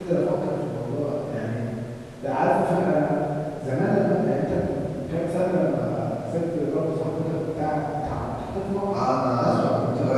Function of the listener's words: taking over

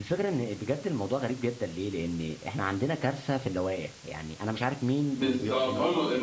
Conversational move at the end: taking over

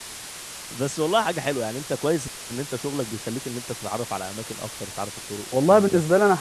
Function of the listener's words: taking over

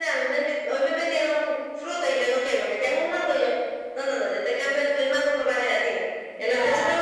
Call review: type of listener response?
listening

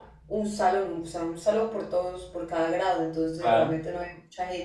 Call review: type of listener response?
listening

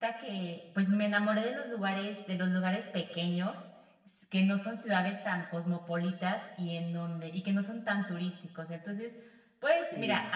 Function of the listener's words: listening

